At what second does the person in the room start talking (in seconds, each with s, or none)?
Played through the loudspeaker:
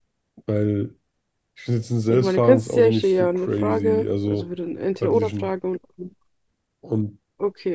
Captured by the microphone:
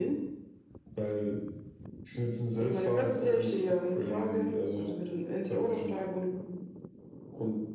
none